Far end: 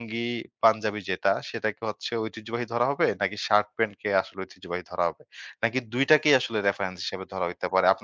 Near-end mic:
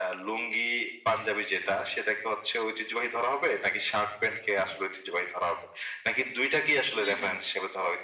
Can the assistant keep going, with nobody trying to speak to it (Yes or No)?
No